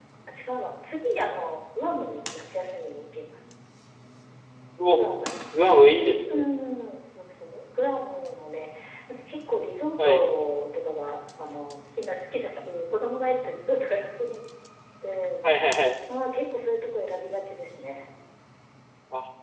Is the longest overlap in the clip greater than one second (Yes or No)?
No